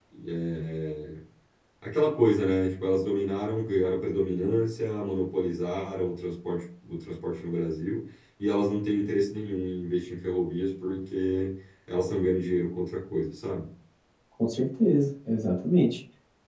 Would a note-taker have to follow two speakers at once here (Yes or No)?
No